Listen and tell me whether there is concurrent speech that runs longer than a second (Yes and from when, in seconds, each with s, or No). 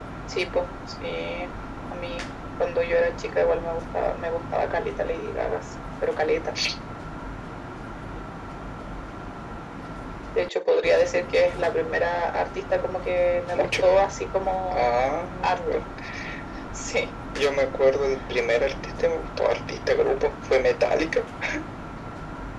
No